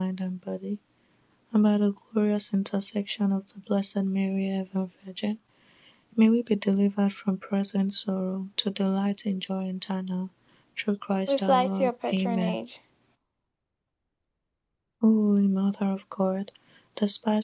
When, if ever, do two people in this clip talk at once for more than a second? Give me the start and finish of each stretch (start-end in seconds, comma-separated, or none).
11.3-12.6